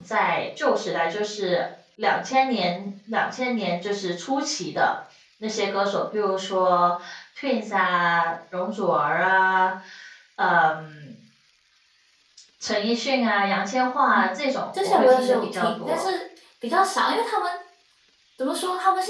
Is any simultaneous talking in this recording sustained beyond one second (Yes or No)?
Yes